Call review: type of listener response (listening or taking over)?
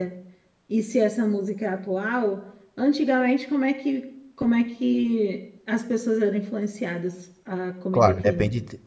taking over